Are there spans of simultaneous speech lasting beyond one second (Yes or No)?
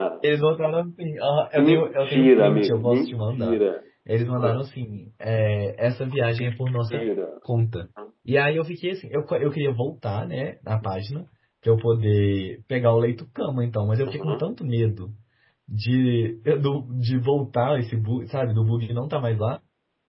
Yes